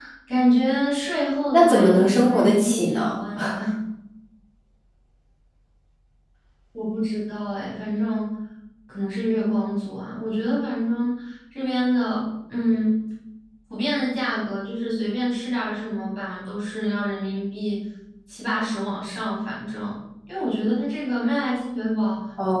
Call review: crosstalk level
present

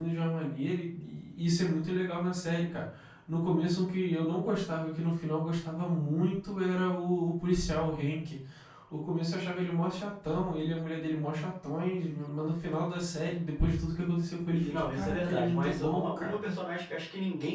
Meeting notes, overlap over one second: present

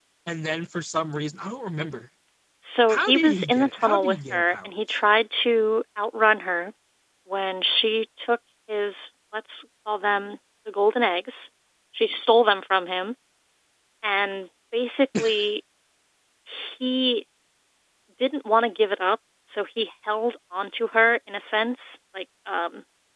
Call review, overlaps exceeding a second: present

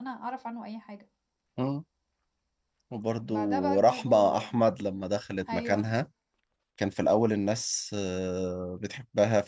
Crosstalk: present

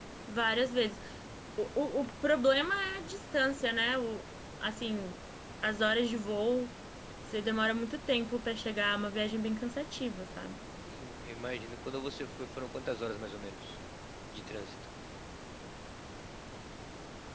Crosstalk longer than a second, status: none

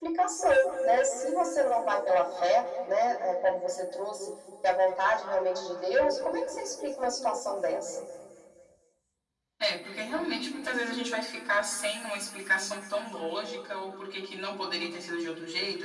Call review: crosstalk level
none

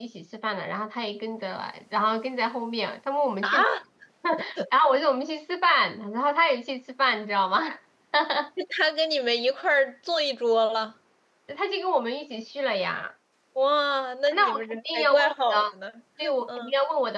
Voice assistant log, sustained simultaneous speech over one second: present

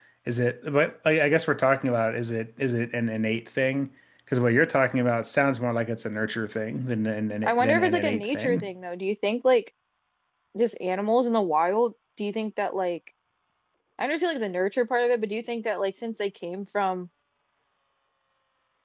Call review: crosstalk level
present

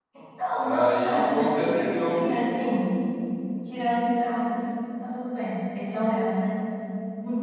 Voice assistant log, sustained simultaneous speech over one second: present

